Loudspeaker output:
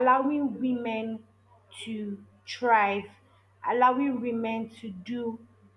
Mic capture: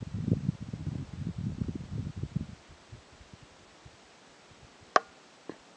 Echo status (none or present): none